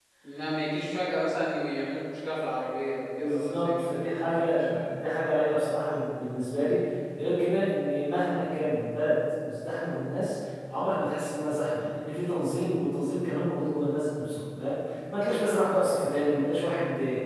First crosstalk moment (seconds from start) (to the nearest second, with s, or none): 3 s